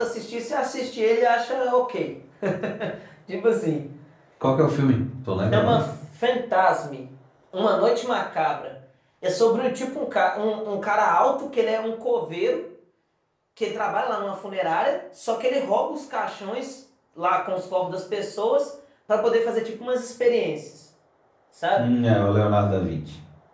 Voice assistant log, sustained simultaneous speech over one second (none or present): none